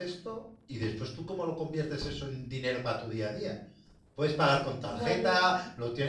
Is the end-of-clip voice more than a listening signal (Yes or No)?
No